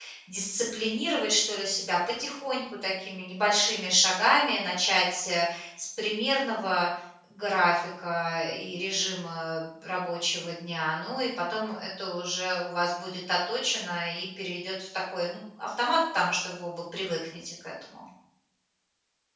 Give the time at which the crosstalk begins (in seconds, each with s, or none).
none